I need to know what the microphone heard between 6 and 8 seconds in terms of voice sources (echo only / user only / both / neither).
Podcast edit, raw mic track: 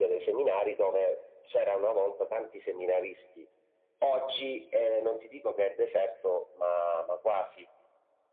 echo only